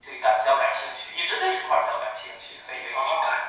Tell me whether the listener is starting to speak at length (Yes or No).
Yes